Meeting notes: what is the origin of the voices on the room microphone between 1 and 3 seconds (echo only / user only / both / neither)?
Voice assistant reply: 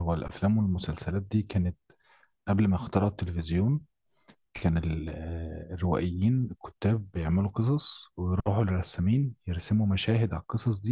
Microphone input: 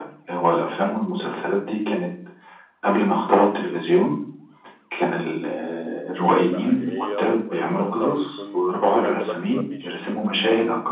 echo only